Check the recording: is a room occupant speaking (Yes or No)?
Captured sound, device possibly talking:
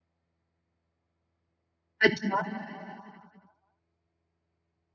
Yes